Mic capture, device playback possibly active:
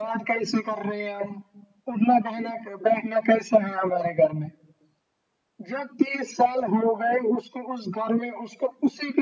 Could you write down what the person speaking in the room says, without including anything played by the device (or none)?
none